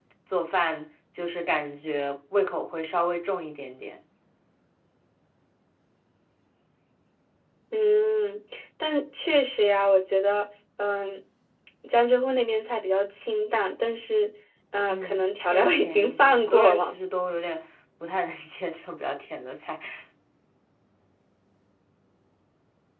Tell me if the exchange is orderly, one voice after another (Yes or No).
No